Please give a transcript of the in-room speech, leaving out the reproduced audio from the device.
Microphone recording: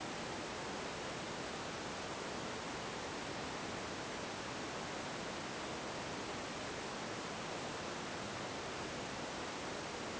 none

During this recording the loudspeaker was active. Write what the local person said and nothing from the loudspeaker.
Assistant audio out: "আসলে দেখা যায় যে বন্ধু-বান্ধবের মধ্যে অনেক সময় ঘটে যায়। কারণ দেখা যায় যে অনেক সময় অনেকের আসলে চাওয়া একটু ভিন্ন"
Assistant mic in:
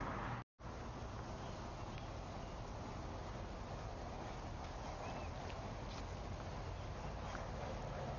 none

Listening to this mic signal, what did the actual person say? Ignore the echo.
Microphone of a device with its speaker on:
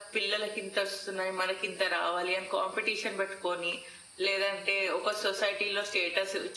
none

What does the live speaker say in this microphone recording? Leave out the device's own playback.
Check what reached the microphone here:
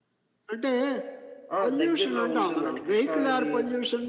ఆ! దగ్గరలో ఉంటుందండి. కృష్ణా నది

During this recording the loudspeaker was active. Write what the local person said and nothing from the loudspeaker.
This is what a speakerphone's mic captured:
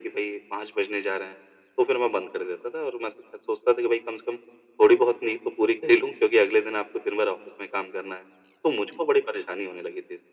none

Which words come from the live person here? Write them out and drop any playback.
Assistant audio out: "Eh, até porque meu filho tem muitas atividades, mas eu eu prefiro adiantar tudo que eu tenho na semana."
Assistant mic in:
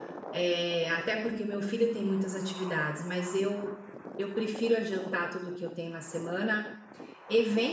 none

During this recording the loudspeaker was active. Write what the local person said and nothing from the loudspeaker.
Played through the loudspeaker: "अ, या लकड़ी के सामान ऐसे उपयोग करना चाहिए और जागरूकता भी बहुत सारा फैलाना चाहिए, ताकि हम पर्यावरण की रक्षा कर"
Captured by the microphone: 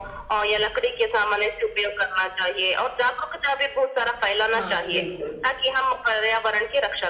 हाँ, बिल्कुल,

